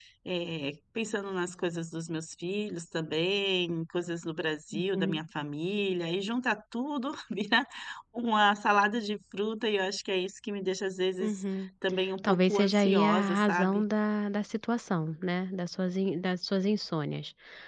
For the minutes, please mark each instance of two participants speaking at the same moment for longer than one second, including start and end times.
12.2-13.8

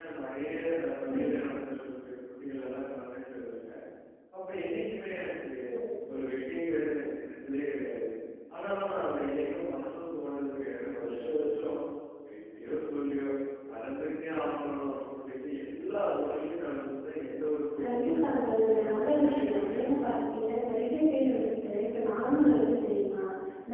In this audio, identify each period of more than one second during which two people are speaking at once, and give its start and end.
17.8-20.5

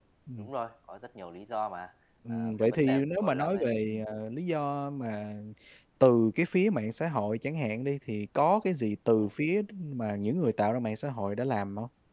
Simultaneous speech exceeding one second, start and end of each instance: 2.3-4.0

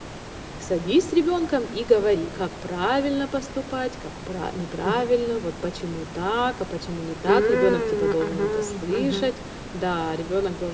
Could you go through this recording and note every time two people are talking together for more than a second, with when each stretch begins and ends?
7.2-9.3

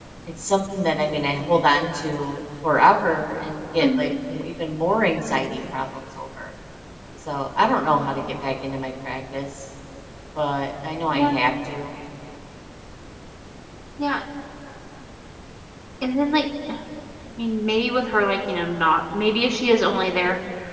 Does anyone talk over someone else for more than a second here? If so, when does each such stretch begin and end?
none

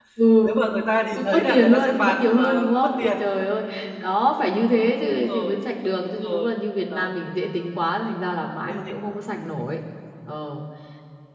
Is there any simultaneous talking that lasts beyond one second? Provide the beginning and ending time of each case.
1.1-3.1

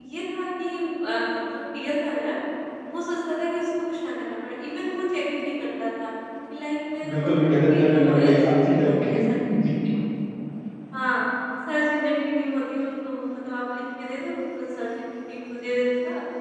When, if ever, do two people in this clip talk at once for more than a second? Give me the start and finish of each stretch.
7.1-9.7

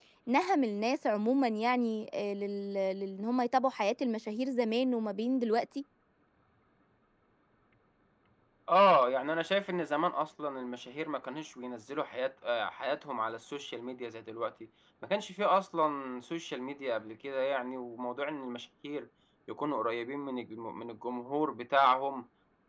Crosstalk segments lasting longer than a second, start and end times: none

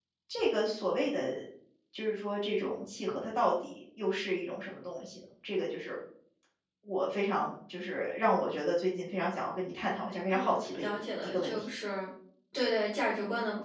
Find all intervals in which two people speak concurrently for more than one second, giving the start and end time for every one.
10.3-11.6

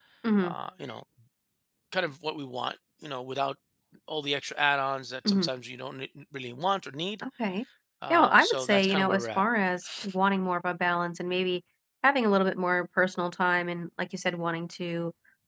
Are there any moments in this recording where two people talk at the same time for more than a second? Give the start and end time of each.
8.1-9.4

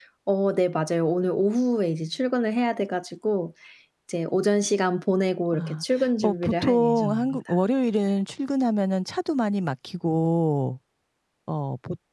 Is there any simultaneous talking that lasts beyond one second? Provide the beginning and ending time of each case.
5.5-7.4

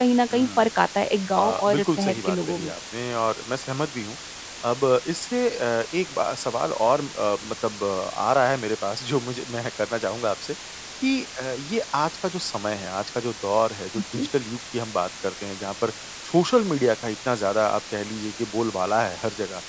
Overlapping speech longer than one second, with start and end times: 1.4-2.7

